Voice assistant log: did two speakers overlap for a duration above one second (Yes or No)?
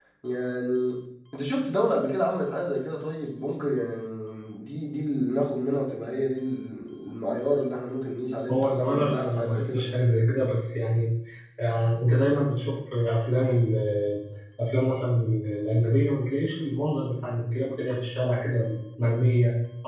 Yes